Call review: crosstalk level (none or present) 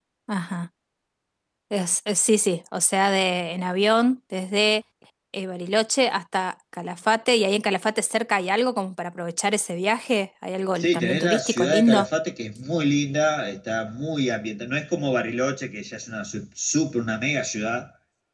present